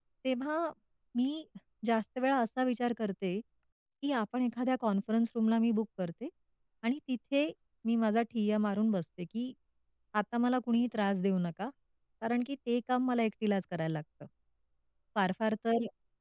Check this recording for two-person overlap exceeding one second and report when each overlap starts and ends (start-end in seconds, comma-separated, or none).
none